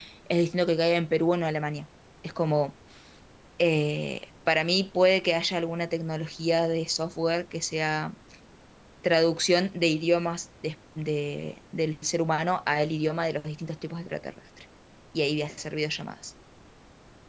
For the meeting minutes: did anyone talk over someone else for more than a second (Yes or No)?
No